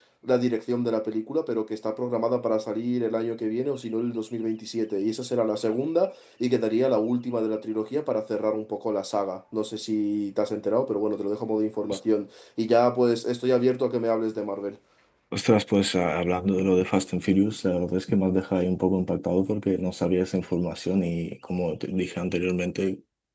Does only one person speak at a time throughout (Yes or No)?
Yes